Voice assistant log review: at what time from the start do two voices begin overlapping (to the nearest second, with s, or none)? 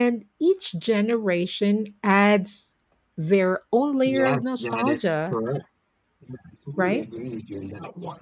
4 s